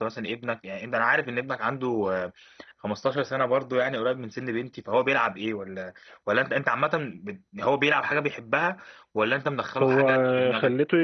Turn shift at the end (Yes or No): Yes